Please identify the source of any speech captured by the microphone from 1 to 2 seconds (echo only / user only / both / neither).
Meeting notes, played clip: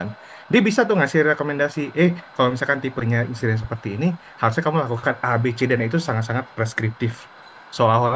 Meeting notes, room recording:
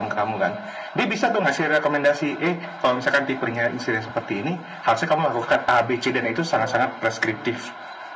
echo only